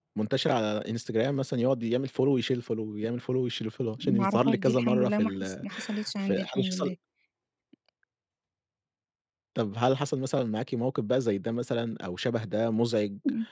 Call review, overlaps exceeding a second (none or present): present